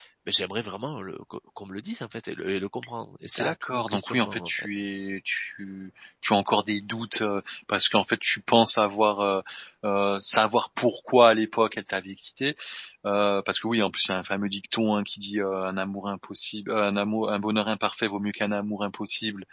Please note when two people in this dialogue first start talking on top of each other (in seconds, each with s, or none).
3.4 s